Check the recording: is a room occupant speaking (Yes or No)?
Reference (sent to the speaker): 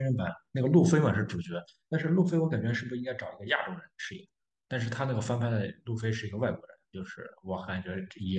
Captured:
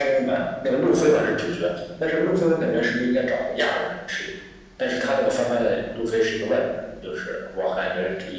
No